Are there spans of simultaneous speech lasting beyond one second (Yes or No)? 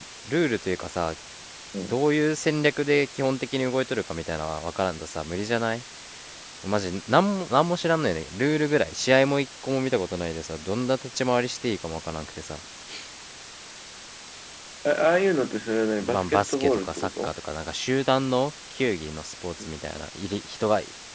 Yes